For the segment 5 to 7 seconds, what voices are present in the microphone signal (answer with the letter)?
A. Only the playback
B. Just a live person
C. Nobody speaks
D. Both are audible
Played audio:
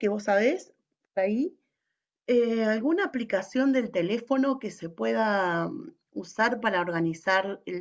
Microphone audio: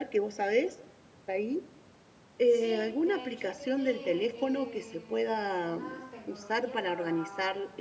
D